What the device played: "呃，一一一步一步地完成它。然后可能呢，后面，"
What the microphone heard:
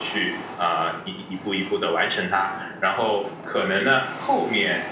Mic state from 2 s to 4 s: echo only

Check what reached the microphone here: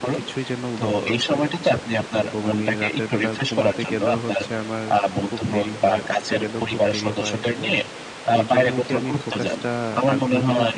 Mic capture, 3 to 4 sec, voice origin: both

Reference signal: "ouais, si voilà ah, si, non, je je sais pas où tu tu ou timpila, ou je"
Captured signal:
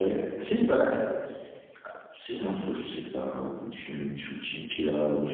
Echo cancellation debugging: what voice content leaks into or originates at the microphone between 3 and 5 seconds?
echo only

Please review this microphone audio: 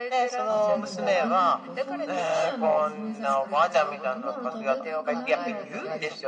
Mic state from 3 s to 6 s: both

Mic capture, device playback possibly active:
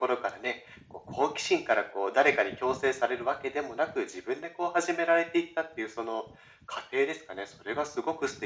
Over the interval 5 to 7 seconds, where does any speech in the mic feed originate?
echo only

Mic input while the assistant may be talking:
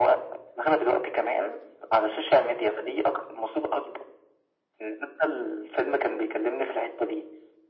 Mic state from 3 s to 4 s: echo only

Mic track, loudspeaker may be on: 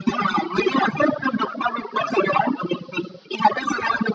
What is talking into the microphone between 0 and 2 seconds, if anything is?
echo only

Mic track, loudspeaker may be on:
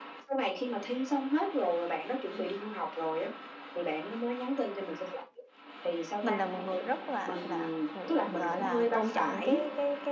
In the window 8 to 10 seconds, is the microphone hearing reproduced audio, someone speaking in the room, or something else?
both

